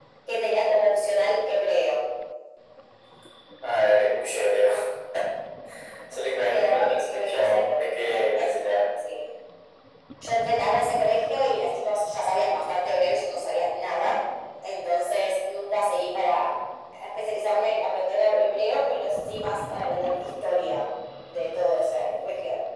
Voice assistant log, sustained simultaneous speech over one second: present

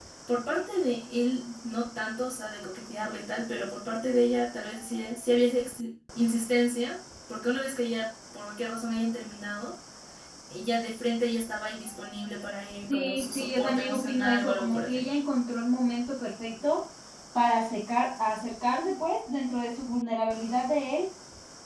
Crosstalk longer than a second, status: present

